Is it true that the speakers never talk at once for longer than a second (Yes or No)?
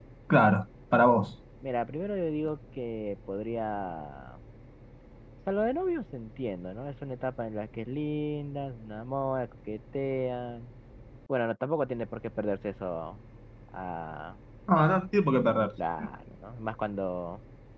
Yes